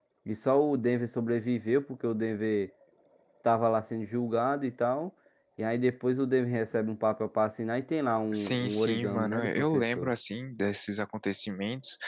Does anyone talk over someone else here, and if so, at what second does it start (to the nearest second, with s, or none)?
8 s